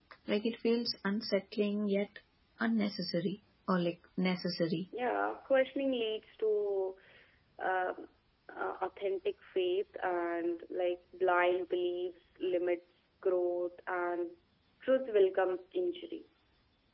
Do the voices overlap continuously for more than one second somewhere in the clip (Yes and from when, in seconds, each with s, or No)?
No